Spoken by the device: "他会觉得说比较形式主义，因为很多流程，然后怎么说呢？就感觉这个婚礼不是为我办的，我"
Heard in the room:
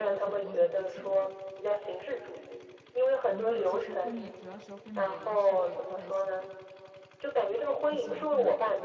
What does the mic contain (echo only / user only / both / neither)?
both